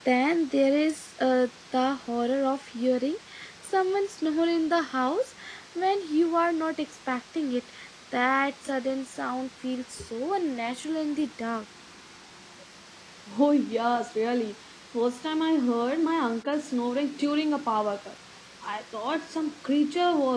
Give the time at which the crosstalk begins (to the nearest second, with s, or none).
none